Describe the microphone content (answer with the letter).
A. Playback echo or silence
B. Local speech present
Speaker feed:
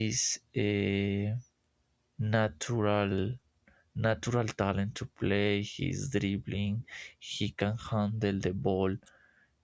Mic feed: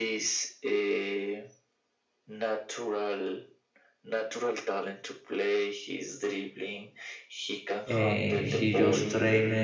B